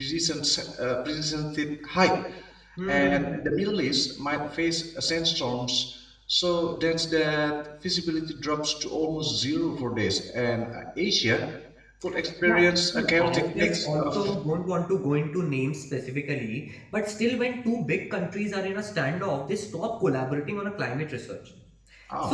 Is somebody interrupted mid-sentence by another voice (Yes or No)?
Yes